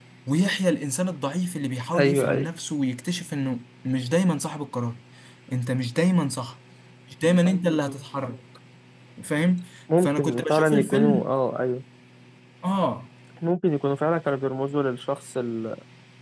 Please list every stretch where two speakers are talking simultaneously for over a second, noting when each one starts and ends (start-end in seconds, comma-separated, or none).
10.0-11.3